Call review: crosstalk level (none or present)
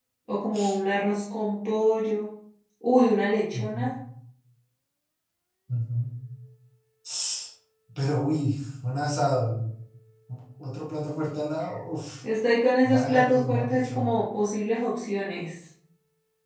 present